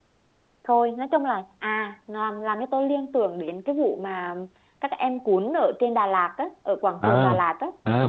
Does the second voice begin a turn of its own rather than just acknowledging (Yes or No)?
Yes